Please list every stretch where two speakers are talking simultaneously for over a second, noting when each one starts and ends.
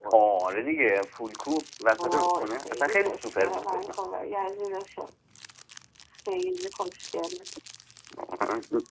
2.0-3.9

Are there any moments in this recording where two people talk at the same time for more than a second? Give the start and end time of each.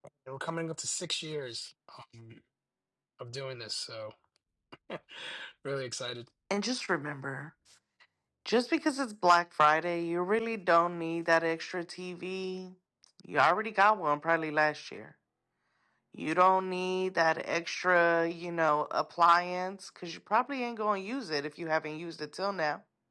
none

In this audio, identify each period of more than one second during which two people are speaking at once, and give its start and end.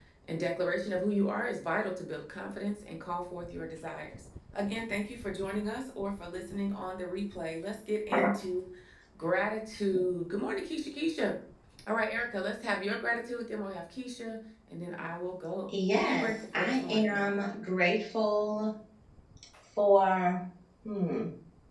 15.9-17.5

